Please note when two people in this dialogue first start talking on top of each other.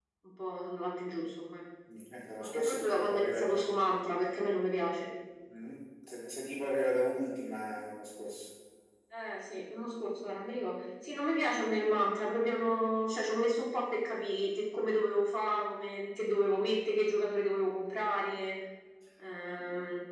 2.4 s

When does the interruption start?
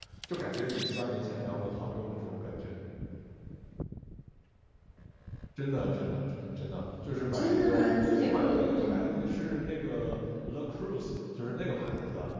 7.3 s

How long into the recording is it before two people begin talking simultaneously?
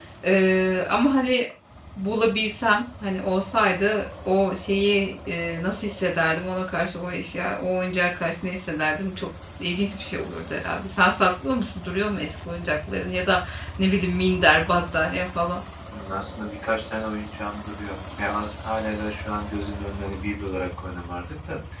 none

